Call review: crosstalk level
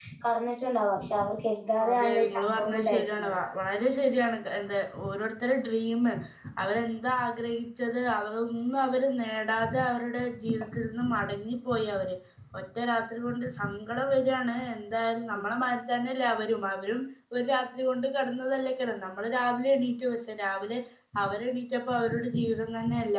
present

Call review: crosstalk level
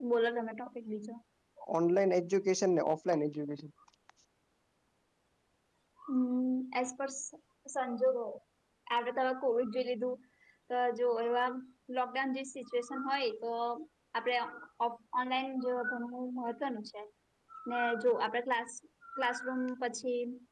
none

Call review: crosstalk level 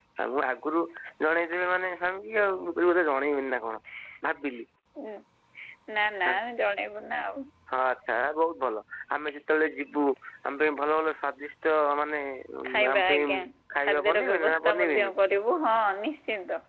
present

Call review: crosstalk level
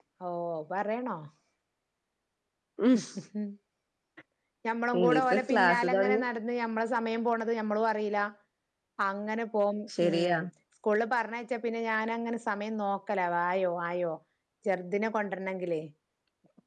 present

